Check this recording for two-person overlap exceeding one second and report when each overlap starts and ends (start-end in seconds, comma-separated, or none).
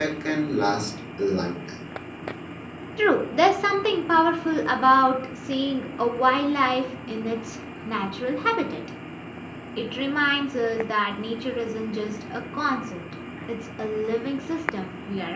none